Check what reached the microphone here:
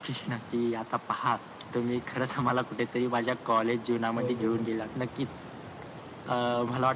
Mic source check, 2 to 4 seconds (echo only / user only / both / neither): echo only